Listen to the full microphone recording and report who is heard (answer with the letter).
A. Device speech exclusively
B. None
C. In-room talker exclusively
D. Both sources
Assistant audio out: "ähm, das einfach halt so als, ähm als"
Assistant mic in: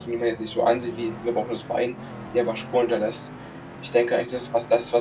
C